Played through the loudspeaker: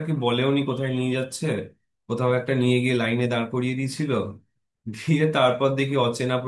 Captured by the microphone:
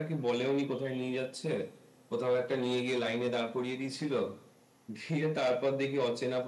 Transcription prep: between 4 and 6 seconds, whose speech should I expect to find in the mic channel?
echo only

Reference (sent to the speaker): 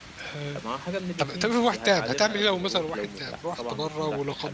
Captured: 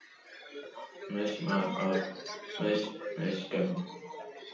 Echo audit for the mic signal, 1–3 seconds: both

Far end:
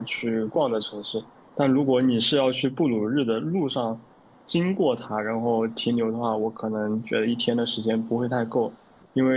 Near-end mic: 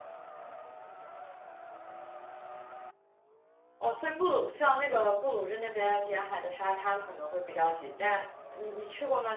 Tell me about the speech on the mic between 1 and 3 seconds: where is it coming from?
neither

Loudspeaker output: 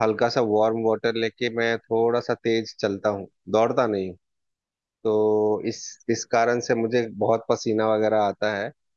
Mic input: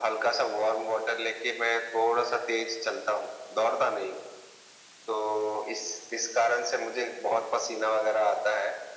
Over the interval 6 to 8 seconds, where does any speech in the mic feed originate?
echo only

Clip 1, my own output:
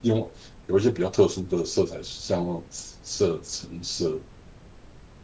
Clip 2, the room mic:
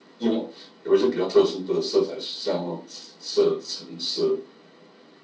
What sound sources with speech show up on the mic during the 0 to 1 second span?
echo only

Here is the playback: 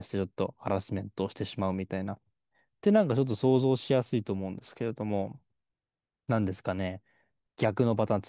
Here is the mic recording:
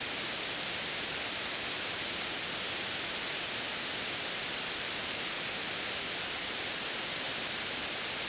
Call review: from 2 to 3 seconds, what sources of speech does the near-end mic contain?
neither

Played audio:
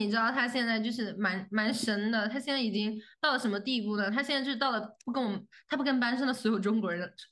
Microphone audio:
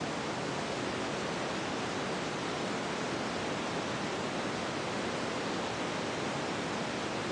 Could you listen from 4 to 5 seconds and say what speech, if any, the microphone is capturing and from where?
neither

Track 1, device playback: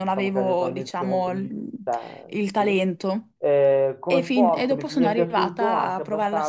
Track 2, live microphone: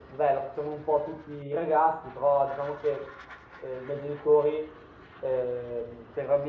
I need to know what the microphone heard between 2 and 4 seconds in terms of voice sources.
user only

